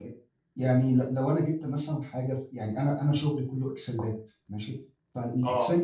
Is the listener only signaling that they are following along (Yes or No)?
Yes